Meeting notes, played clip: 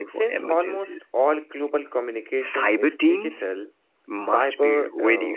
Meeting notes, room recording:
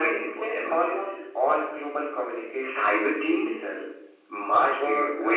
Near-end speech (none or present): none